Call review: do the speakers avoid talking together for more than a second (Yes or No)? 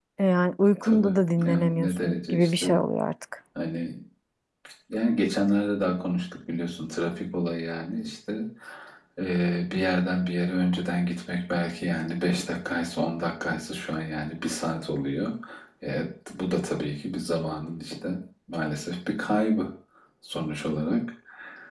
No